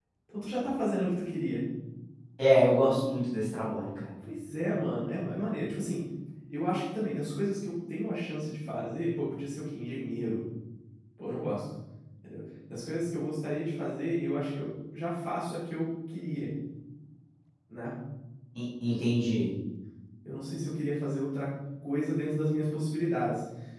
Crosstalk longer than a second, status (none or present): none